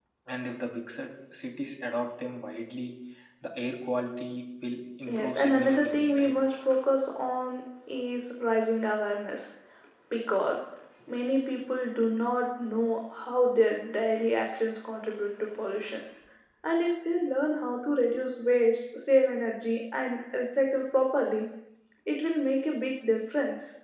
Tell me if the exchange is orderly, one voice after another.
No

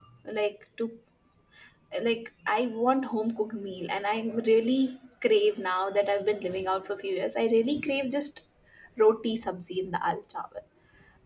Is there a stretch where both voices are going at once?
No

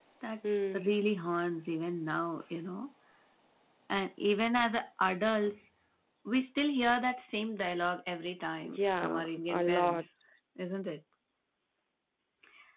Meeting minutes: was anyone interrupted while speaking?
Yes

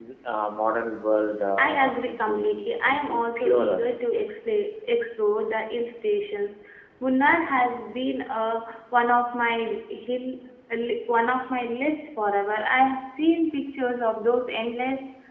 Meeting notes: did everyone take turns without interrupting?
No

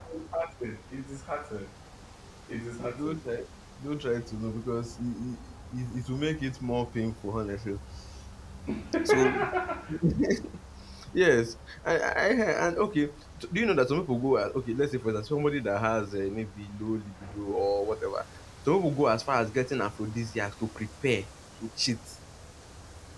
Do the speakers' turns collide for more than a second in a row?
No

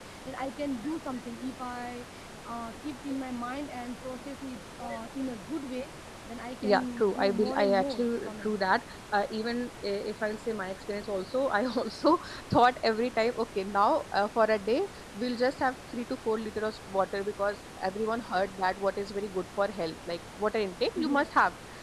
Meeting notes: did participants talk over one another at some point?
Yes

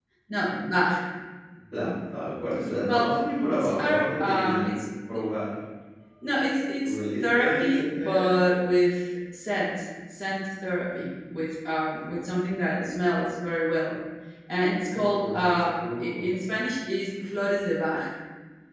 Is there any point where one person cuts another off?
Yes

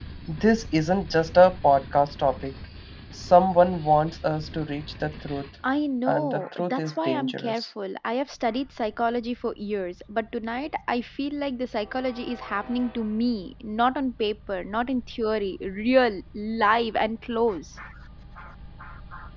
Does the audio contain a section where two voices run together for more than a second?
Yes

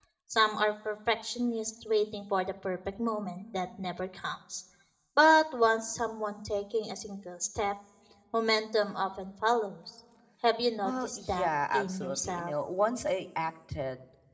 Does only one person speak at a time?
No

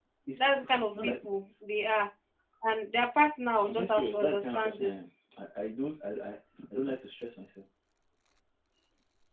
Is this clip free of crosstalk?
No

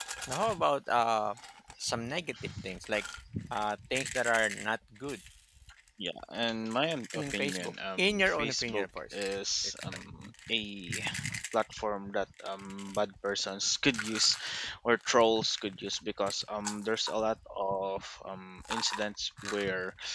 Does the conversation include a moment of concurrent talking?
Yes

